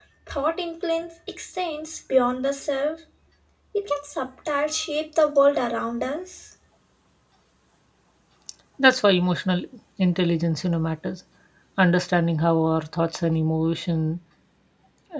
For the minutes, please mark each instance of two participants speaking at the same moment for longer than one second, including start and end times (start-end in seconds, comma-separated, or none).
none